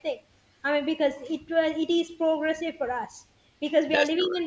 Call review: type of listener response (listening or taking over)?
listening